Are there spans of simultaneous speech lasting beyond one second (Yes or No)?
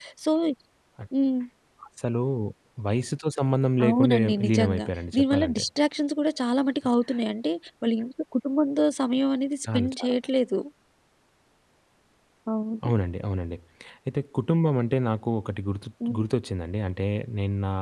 Yes